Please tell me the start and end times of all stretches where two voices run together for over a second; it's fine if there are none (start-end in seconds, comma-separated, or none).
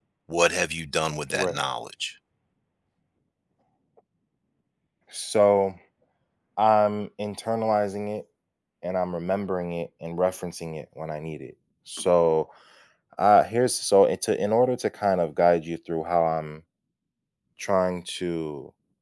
none